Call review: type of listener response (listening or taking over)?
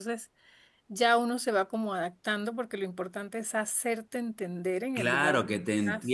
taking over